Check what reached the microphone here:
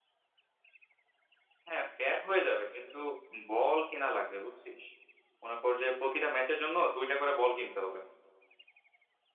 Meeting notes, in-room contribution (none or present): present